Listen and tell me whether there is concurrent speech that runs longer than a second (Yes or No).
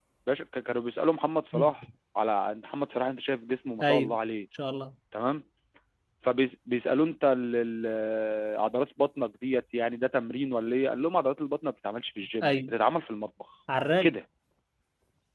No